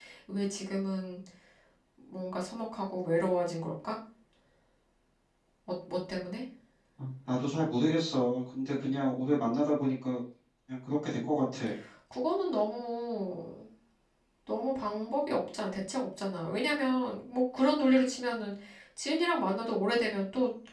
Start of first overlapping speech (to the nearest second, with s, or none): none